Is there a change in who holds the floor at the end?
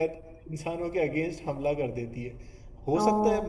No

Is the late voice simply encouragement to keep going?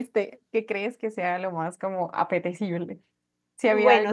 No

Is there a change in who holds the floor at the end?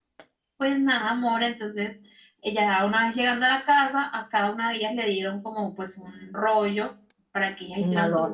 No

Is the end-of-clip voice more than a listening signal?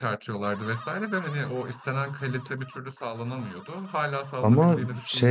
Yes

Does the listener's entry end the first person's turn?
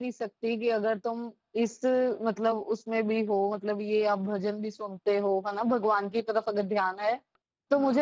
No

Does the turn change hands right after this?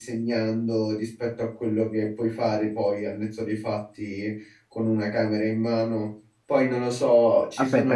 Yes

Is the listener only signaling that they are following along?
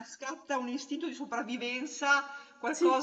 Yes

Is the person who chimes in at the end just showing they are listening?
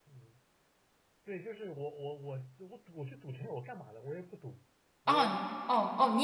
No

